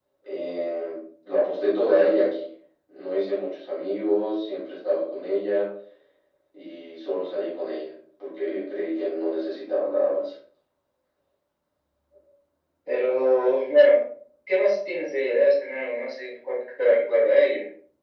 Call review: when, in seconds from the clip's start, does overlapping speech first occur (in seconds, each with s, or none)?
none